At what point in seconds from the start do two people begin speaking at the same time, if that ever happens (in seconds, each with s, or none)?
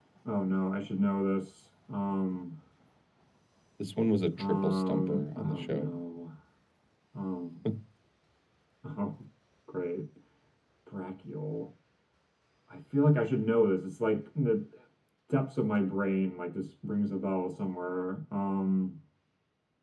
4.4 s